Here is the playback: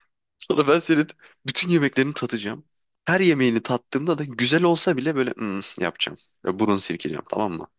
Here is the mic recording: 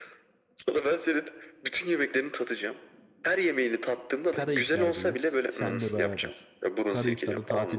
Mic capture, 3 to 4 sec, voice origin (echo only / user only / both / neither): echo only